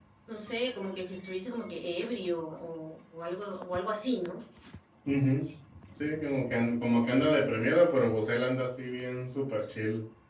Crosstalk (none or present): none